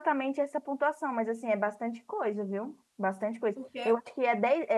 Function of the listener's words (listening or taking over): listening